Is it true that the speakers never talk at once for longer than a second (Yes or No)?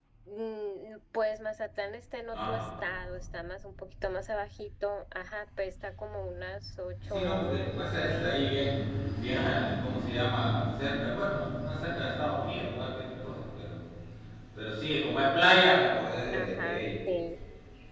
No